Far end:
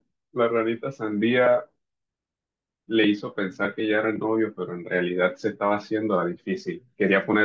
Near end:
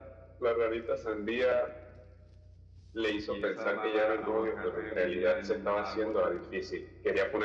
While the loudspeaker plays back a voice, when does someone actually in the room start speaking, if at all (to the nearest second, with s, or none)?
3 s